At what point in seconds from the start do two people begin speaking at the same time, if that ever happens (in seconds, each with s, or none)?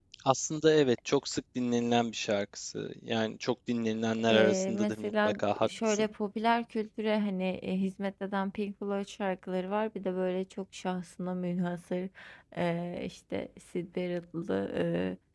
4.3 s